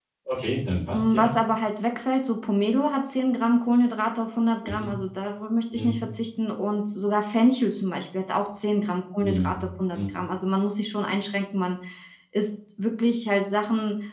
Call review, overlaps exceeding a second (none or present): none